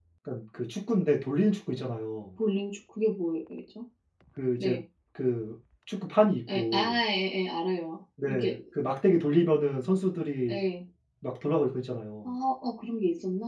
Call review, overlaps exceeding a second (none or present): none